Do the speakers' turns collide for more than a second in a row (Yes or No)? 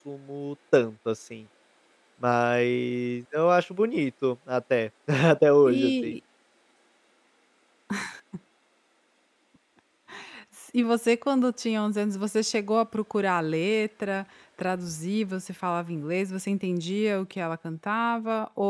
No